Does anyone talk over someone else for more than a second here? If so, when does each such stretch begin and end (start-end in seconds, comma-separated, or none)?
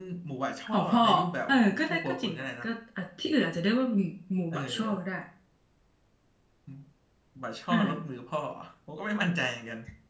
1.5-2.7